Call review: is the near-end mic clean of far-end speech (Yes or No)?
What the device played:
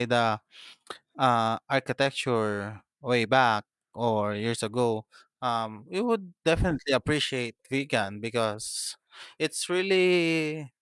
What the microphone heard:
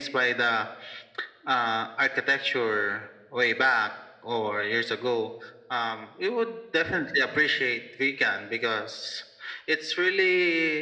No